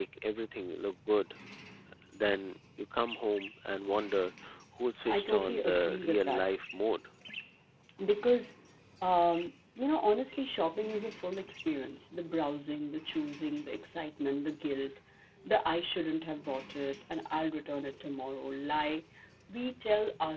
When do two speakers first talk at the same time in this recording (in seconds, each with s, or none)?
5.1 s